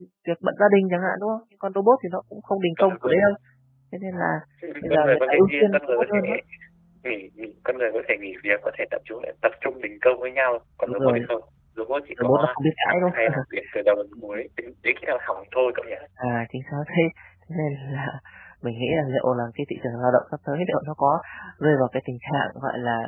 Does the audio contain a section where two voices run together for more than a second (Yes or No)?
Yes